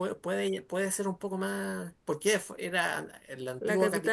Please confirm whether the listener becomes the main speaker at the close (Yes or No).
Yes